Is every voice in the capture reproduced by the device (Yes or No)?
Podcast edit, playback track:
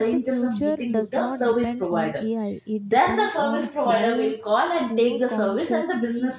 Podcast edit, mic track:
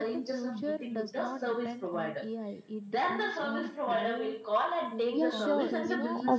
No